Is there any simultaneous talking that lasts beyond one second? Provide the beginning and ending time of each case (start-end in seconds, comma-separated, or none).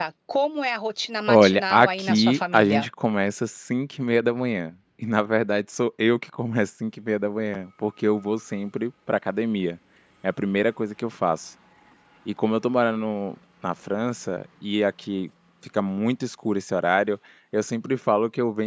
1.3-2.8